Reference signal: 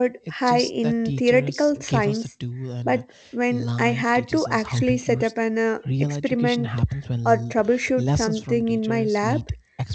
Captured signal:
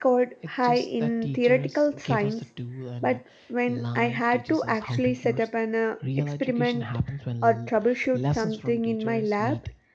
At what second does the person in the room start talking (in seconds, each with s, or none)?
none